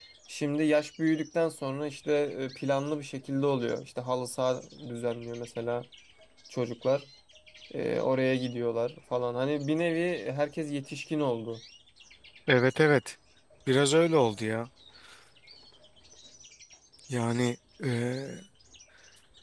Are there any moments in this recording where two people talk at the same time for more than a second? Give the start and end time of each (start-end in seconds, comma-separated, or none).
none